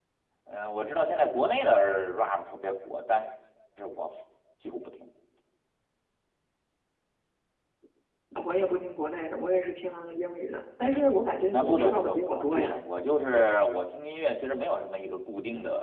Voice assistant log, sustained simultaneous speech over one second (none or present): present